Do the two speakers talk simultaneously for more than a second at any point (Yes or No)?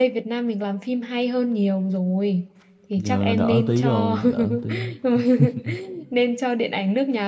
Yes